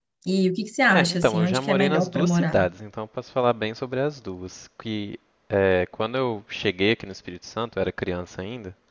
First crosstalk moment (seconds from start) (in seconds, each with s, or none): 0.9 s